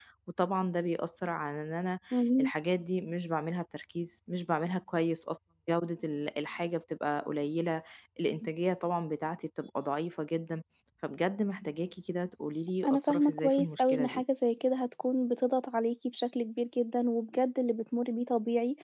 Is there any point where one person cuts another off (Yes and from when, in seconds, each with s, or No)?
Yes, from 12.8 s